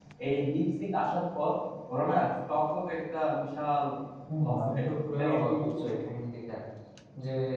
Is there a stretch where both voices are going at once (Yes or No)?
Yes